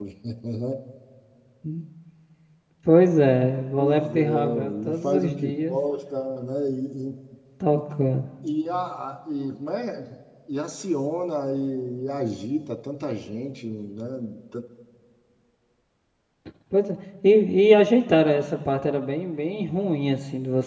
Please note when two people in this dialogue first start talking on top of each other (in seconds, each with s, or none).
3.8 s